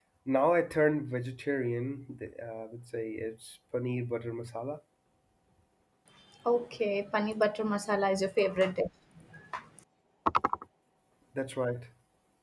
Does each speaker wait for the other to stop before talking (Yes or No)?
Yes